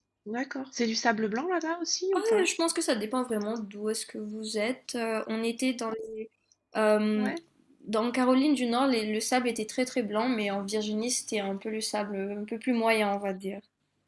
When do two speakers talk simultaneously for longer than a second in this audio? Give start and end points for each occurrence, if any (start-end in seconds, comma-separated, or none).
none